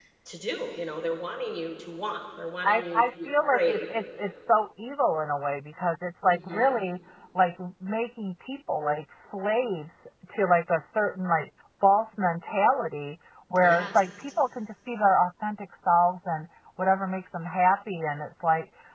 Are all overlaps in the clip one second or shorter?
No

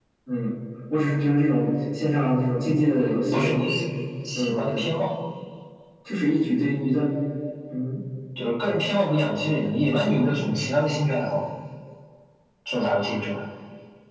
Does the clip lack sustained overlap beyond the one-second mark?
Yes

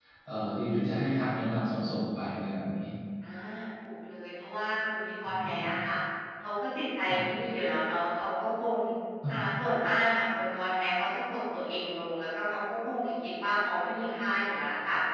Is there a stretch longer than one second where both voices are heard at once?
No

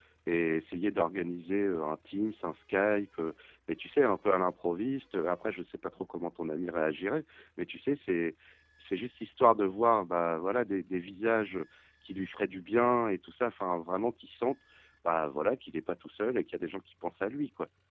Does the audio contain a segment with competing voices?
No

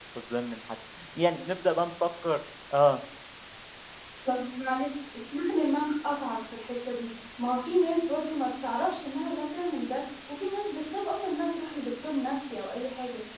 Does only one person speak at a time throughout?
Yes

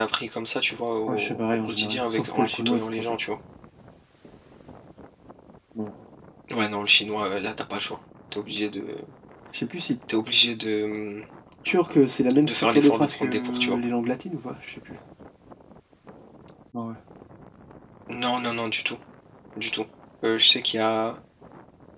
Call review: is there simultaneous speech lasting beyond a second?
Yes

